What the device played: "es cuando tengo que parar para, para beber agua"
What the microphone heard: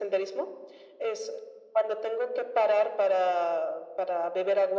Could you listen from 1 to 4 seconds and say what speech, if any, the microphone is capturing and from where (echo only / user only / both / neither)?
echo only